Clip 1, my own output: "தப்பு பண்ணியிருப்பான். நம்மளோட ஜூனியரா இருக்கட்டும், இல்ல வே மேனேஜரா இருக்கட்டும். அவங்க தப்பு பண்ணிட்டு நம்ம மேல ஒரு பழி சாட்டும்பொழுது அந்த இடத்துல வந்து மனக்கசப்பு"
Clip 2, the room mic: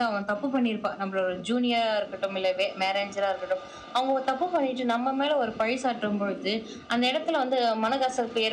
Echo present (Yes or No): Yes